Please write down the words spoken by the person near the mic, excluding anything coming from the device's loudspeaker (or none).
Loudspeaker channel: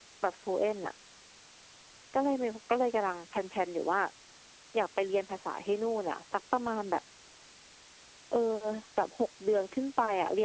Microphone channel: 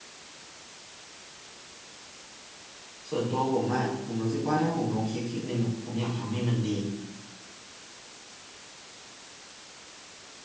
ส่วนตัวผมอะผมรู้สึกว่าถ้าผมลงคลิปคลิปหนึ่งอะผมอยากทำให้มันดี